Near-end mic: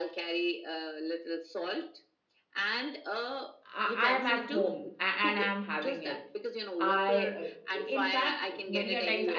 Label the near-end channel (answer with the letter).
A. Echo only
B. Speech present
B